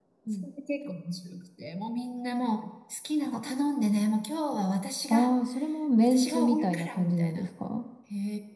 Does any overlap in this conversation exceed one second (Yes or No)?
Yes